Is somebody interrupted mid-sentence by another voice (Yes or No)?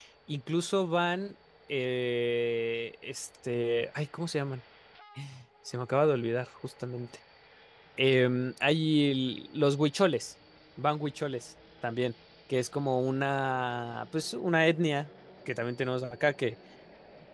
No